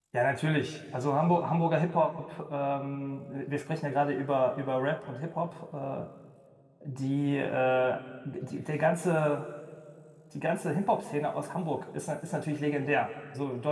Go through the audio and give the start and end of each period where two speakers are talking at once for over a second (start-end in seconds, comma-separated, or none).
none